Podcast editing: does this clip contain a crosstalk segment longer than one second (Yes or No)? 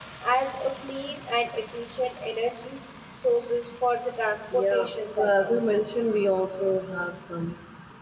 Yes